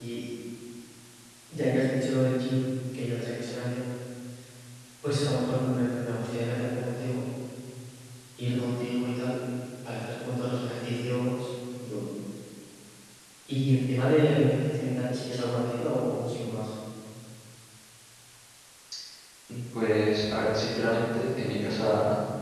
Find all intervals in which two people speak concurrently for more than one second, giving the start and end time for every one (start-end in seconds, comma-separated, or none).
none